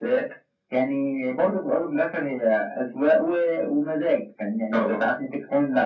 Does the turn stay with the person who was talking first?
Yes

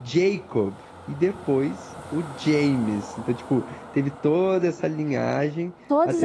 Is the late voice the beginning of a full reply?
Yes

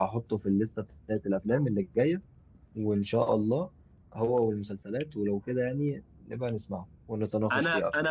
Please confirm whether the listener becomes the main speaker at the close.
Yes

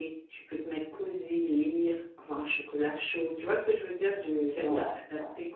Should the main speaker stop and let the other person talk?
No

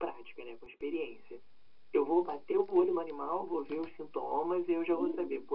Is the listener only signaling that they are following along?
Yes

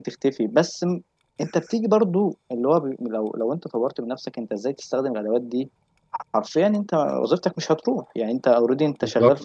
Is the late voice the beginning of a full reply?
No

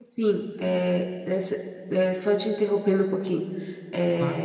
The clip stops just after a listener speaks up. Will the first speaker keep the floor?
Yes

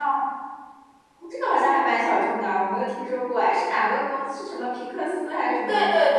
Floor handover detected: Yes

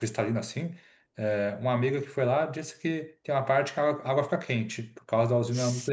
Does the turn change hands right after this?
Yes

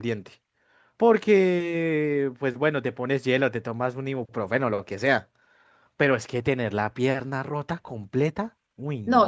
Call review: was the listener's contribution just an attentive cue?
No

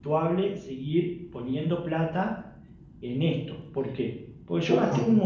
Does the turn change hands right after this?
No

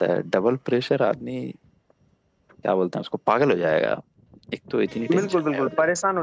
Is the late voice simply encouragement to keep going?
No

